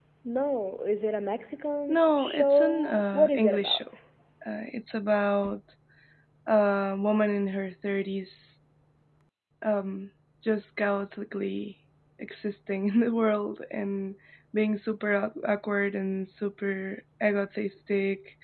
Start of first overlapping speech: 1.9 s

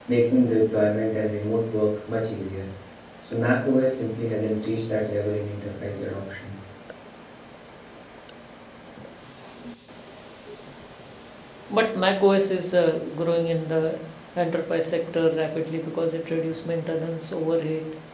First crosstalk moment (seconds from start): none

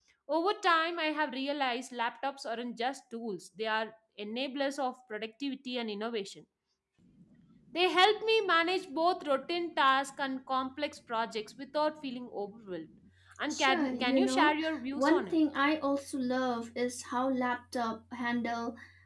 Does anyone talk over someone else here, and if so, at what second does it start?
13.5 s

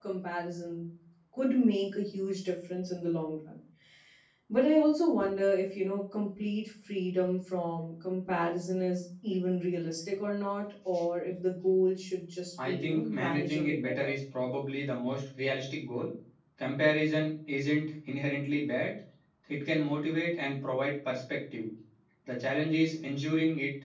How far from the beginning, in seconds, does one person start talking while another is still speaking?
12.6 s

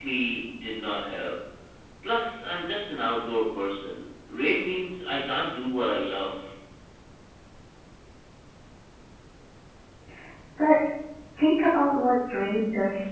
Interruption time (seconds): none

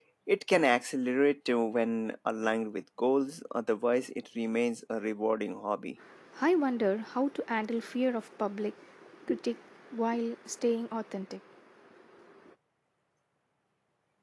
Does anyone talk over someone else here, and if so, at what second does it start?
none

